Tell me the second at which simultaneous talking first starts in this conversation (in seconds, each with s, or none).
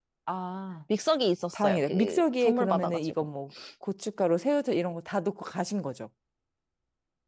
1.5 s